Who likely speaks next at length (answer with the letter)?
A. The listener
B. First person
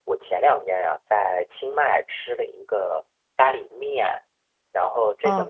B